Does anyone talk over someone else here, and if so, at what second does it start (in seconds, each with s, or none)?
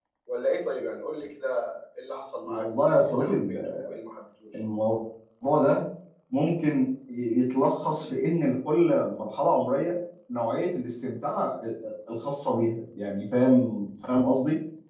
2.5 s